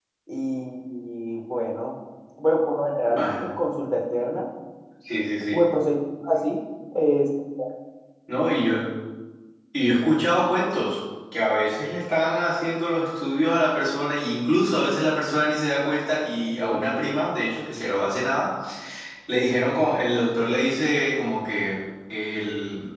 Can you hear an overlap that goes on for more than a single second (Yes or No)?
No